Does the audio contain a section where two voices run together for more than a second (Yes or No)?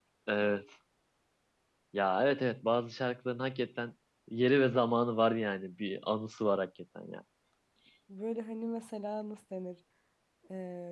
No